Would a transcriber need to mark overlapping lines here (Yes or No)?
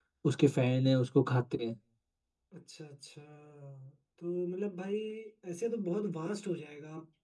No